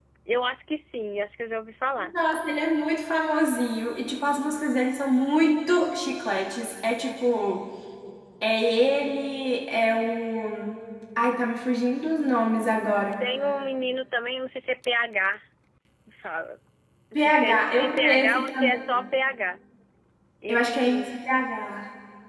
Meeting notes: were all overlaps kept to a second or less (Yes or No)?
No